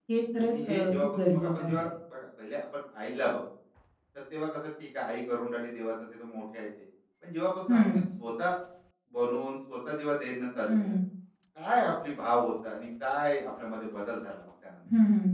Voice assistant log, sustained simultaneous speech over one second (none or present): present